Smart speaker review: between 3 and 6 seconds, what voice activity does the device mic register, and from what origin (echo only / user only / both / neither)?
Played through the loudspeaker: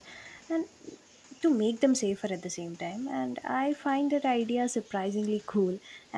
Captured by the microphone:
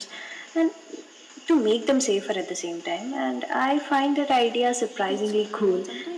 both